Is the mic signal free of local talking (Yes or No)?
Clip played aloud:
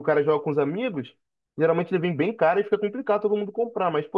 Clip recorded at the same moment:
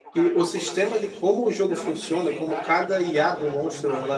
No